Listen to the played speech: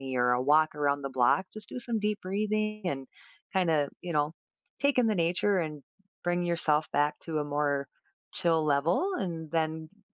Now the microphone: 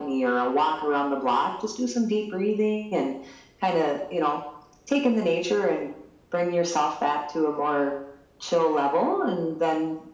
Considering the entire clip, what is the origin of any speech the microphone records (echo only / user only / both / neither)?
echo only